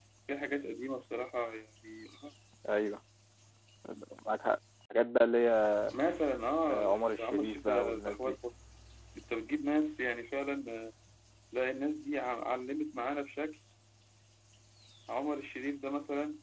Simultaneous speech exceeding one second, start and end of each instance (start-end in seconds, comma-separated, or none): 6.7-8.4